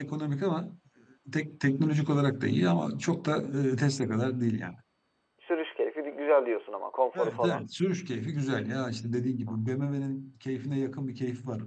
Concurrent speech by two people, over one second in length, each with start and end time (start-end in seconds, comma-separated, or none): none